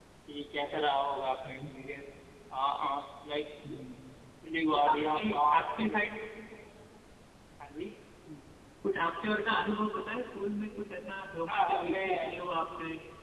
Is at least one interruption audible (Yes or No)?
Yes